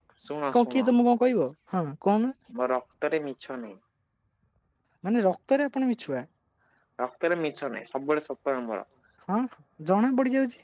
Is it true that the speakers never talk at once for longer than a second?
Yes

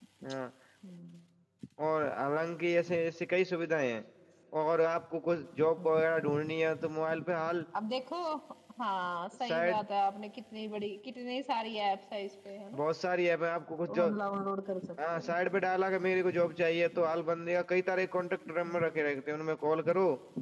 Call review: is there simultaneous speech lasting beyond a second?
No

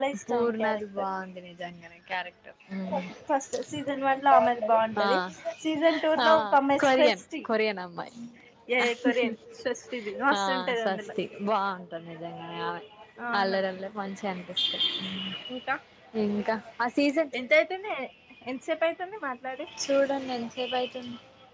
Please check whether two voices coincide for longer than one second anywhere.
Yes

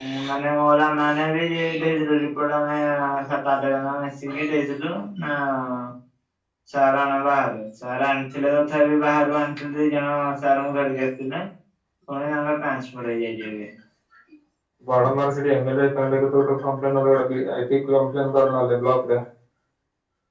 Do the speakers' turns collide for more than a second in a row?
No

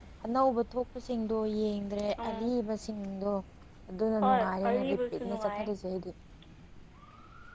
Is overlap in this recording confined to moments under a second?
No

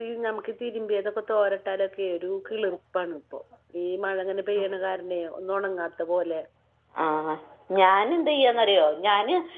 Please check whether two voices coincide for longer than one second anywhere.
No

